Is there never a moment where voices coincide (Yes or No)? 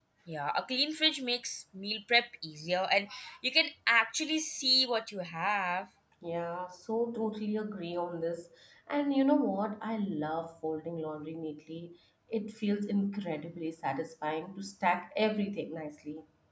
Yes